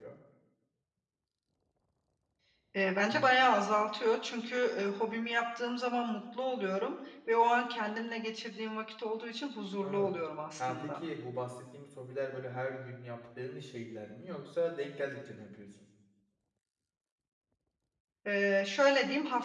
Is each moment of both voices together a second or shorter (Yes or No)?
Yes